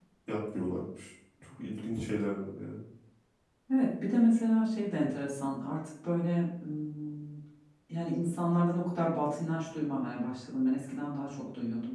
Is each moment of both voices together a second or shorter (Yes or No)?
Yes